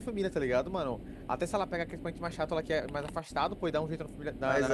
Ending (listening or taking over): listening